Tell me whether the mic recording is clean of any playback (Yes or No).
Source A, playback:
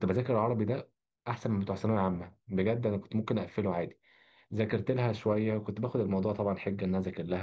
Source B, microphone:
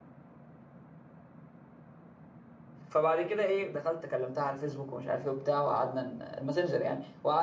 Yes